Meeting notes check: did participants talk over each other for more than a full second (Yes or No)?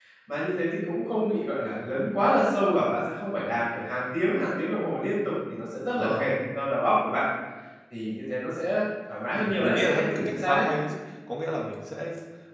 Yes